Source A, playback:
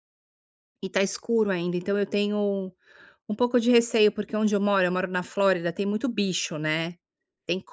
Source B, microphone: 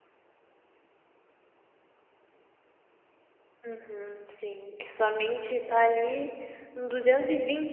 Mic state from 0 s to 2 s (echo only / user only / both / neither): neither